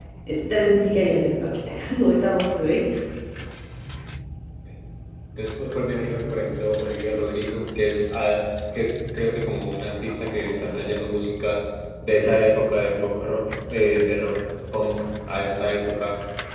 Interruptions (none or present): none